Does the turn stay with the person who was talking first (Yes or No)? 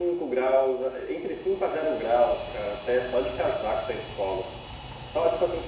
Yes